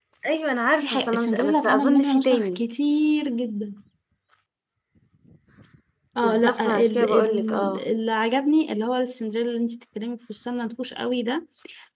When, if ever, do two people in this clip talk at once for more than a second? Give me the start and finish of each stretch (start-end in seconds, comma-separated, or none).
0.8-2.6, 6.2-7.8